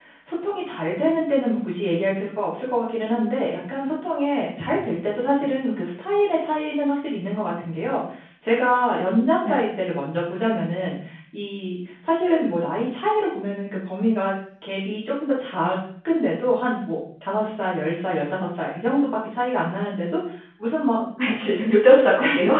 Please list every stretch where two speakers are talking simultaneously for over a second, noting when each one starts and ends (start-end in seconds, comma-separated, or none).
none